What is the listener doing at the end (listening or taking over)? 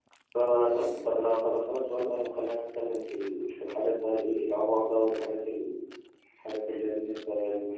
listening